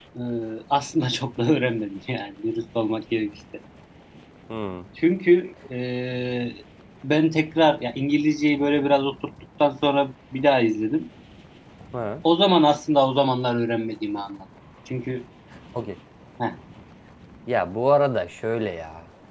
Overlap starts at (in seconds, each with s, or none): none